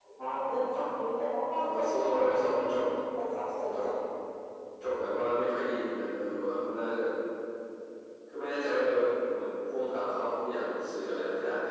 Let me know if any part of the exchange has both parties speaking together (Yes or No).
Yes